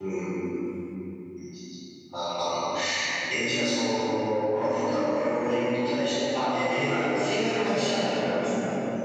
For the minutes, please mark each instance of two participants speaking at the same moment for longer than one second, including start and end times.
6.5-8.2

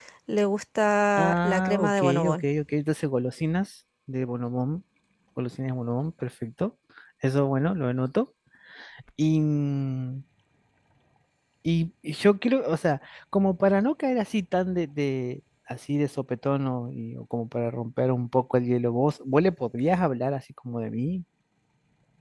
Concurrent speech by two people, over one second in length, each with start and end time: 1.2-2.4

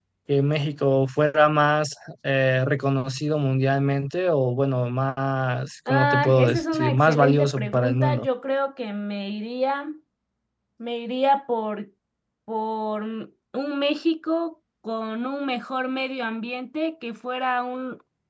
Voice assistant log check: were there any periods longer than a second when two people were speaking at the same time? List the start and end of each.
5.9-8.3

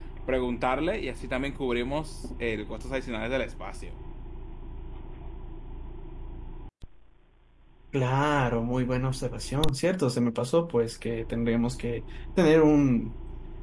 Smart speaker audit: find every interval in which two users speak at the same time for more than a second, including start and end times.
none

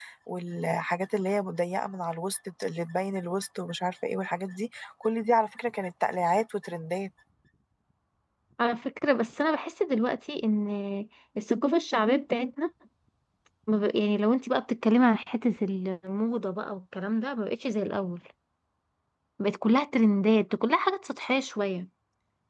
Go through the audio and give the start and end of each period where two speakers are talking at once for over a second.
none

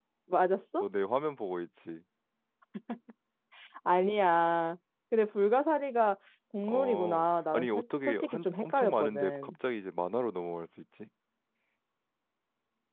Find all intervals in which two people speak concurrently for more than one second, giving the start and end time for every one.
6.7-9.5

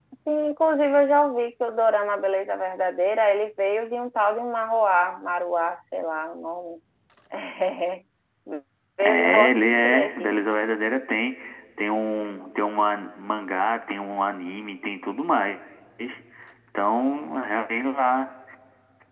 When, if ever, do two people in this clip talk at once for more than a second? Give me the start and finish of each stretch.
9.0-10.4

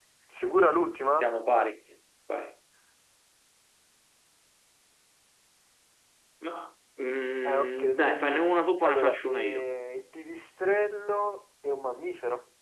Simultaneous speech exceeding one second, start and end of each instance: 7.4-9.6

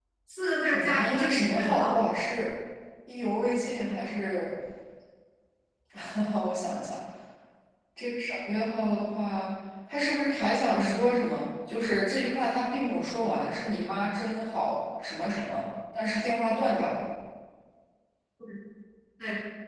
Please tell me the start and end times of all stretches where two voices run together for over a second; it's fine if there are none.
0.6-2.0

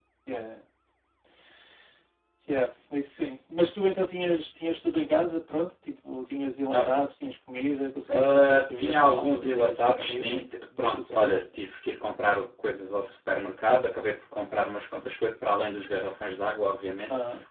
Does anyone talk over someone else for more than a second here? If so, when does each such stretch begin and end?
8.1-11.4

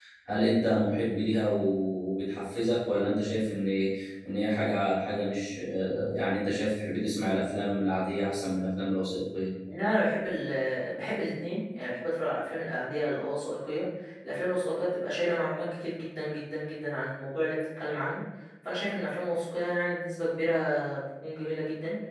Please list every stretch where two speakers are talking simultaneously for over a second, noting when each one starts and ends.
none

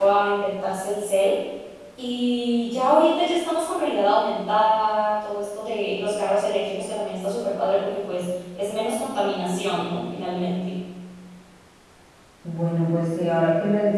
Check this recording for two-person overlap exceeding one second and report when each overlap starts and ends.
none

